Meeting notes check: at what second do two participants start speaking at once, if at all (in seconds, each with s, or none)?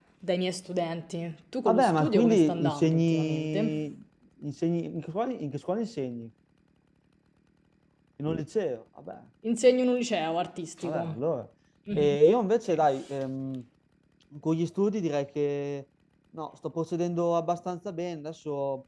1.6 s